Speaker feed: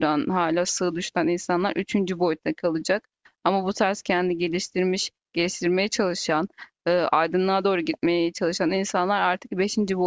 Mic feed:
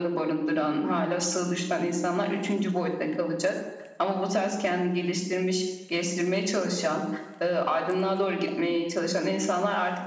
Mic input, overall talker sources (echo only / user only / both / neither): echo only